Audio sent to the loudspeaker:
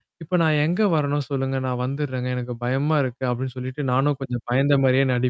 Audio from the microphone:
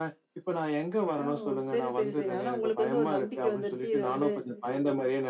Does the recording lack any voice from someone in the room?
No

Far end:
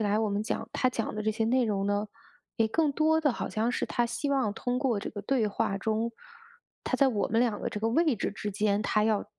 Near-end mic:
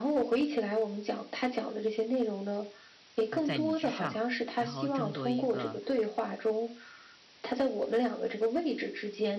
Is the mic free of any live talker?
No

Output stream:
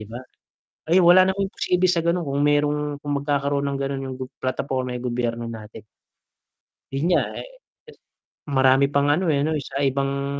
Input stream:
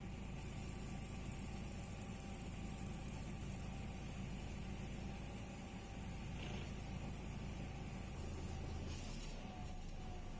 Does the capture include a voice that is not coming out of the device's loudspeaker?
No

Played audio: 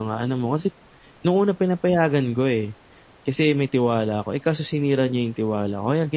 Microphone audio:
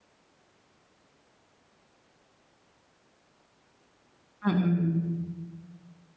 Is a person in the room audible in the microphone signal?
Yes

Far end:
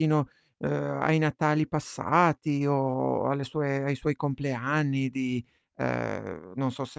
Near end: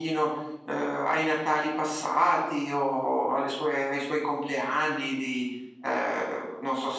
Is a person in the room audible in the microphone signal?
No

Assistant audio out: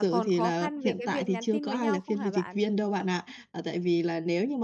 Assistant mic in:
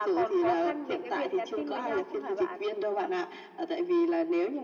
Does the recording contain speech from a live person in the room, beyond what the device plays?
No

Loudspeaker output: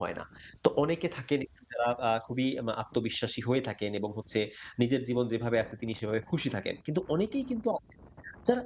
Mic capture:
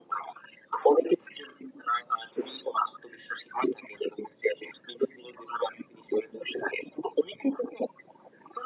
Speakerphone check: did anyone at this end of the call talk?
No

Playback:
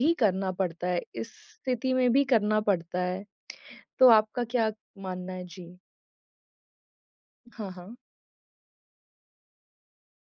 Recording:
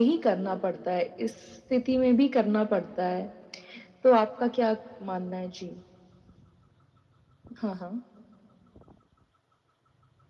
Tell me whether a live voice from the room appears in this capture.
No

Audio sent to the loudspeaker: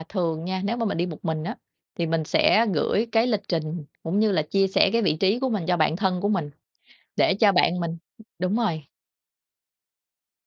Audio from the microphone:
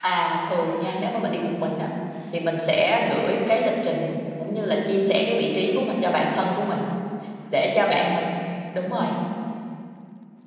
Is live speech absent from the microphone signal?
Yes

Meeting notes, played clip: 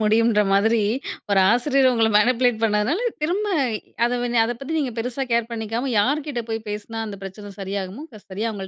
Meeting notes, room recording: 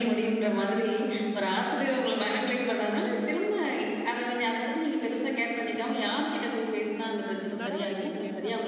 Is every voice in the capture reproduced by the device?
No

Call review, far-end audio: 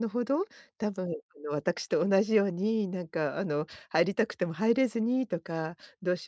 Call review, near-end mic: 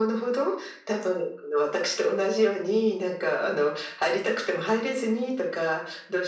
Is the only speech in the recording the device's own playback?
Yes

